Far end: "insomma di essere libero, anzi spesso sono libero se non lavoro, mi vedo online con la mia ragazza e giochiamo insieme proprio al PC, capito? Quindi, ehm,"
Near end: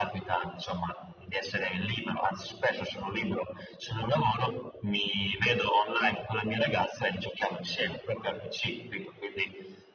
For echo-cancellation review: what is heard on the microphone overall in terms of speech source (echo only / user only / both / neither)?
echo only